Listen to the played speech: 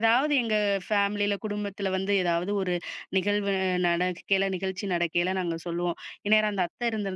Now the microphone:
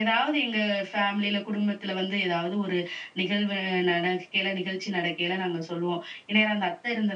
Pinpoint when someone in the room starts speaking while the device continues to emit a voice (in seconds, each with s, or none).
none